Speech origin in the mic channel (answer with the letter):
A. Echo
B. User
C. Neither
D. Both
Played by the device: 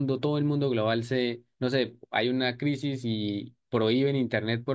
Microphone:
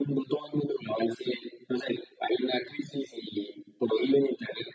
A